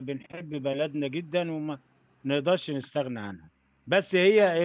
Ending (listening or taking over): listening